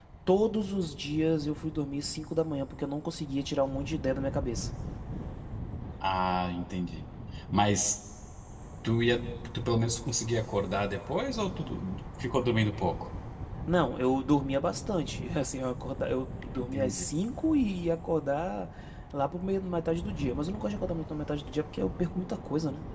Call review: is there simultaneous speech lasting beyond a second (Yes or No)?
No